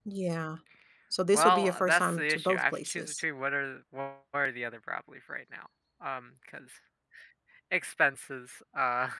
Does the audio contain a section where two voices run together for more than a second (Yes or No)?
Yes